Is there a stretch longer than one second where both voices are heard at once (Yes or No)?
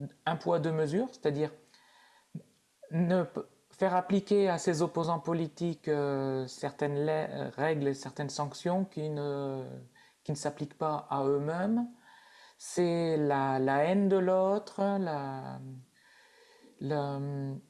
No